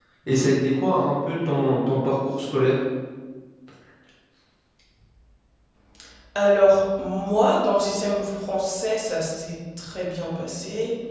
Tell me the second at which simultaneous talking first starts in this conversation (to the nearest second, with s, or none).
none